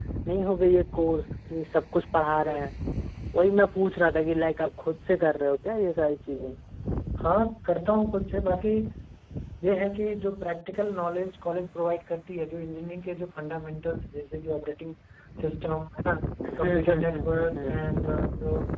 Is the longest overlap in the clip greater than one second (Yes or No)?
Yes